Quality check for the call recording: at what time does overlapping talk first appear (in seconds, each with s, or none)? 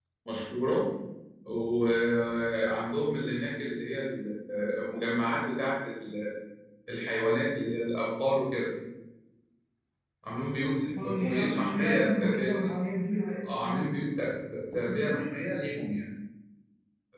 11.0 s